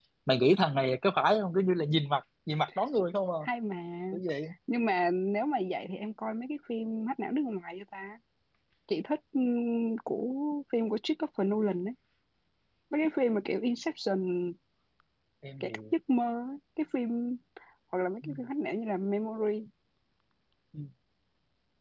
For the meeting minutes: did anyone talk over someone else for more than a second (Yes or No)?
No